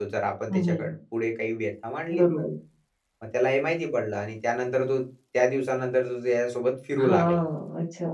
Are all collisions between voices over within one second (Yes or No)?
Yes